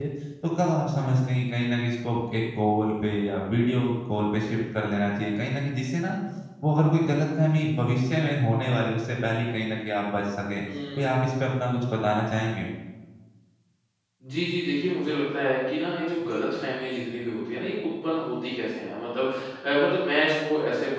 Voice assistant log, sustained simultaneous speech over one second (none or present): none